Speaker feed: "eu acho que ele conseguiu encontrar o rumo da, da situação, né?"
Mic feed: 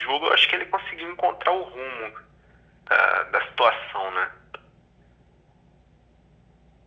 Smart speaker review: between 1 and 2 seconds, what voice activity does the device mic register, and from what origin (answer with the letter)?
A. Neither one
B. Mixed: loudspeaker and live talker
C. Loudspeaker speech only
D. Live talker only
C